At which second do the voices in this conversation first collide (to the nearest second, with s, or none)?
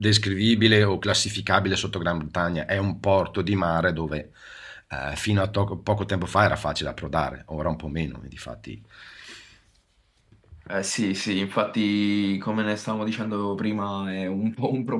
none